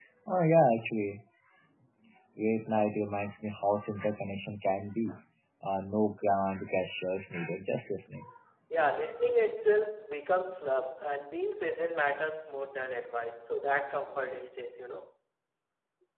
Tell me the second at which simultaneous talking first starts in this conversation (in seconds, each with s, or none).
none